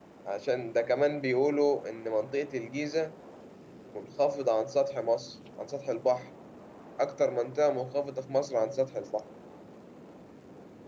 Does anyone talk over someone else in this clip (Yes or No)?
No